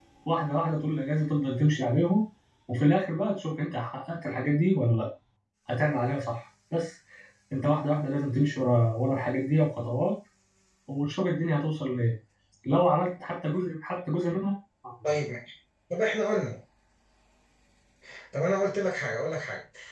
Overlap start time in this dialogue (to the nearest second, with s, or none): none